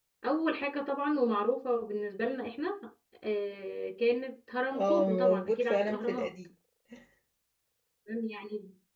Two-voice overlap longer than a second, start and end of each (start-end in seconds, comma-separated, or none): 4.7-6.3